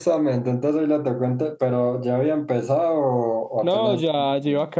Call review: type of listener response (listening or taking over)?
taking over